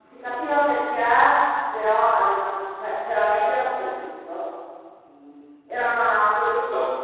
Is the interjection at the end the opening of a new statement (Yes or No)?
No